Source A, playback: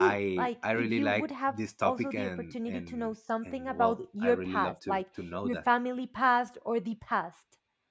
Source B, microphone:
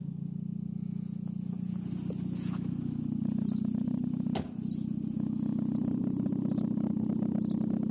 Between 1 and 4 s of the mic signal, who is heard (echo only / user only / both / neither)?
neither